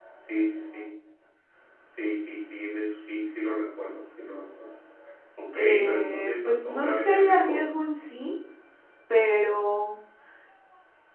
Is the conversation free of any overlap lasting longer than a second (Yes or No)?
No